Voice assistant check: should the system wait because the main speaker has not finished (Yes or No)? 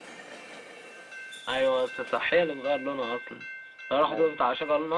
Yes